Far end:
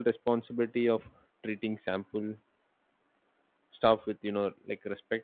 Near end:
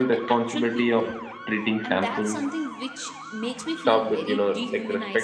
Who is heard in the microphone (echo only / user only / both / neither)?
both